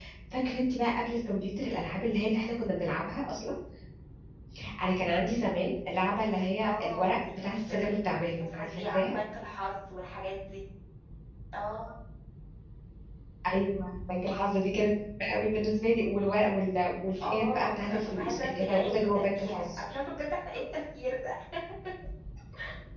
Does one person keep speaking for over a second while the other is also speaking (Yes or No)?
Yes